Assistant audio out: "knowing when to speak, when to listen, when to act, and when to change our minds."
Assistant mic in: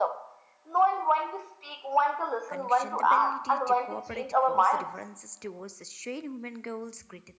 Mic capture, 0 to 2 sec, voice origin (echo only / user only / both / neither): echo only